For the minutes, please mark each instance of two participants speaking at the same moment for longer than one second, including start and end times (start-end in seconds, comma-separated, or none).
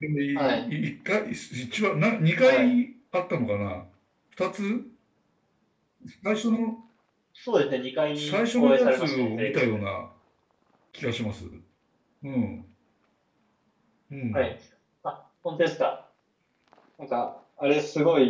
8.2-9.6